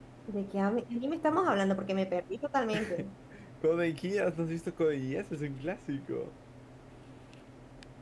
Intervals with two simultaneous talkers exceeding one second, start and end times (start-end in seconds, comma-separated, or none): none